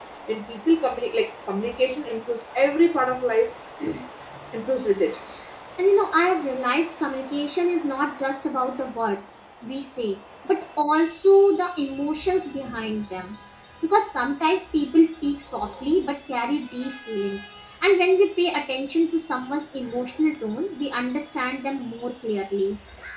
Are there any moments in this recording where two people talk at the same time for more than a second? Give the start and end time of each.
none

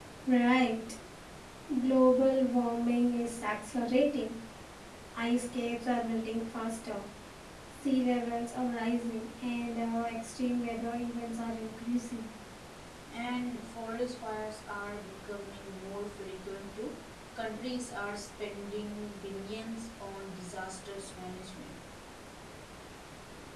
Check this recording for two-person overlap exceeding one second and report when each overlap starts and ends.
none

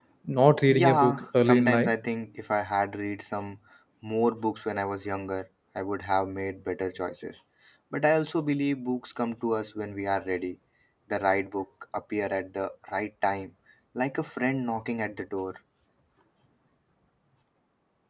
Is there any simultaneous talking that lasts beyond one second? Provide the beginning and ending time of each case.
0.7-1.9

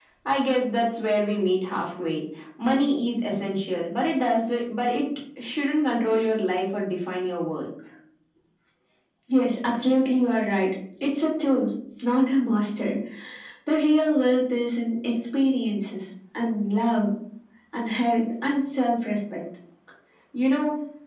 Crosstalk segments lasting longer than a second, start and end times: none

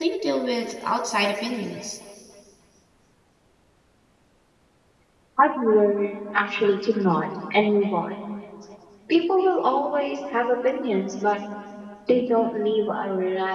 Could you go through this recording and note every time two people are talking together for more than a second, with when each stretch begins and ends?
none

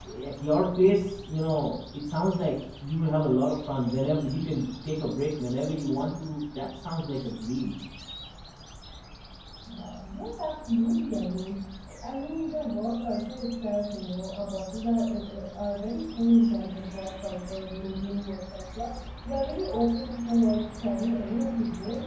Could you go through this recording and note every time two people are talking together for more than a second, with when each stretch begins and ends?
none

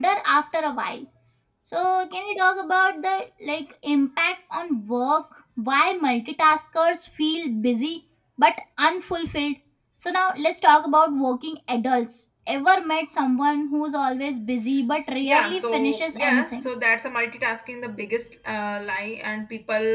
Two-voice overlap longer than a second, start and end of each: 15.2-16.7

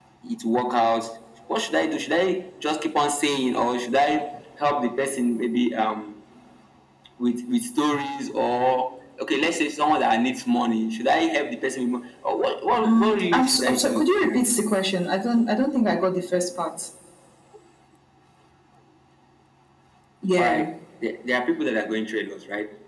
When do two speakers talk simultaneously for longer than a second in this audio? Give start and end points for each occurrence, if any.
12.8-14.1

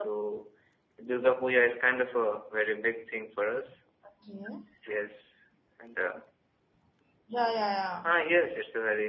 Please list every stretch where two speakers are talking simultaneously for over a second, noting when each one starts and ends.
none

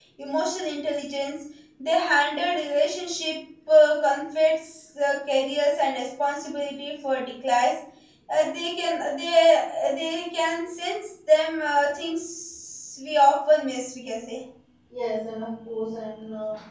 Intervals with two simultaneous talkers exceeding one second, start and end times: none

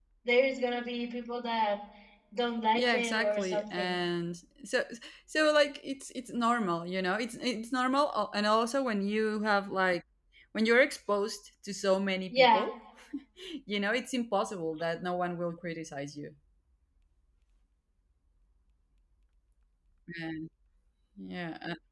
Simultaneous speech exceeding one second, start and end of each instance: 2.8-4.0

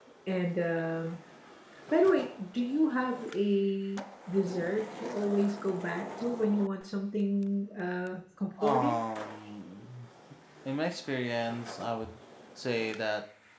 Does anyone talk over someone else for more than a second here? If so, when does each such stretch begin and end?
none

